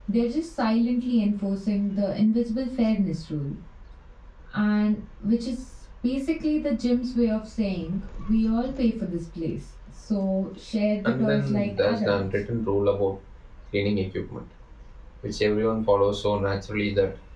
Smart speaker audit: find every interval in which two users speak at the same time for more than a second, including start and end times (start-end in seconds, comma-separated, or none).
11.0-12.2